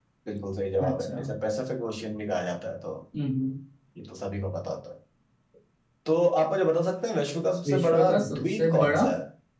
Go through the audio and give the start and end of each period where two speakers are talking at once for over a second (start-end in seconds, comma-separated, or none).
7.7-9.1